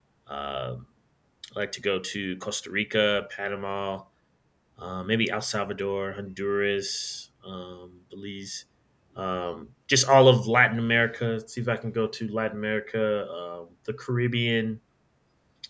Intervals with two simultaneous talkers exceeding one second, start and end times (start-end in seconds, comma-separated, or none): none